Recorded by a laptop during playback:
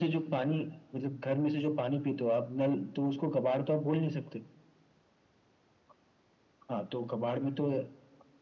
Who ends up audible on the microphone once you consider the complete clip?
echo only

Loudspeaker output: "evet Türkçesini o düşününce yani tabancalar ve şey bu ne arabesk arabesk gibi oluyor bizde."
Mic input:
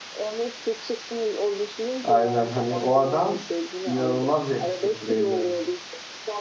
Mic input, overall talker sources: both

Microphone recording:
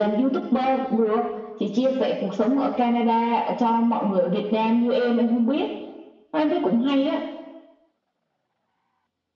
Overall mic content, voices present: echo only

